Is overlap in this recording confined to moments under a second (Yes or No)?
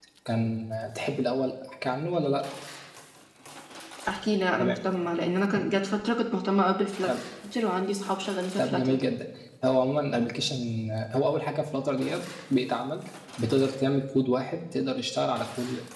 Yes